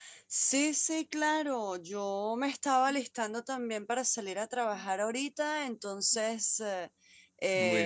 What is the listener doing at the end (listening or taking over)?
listening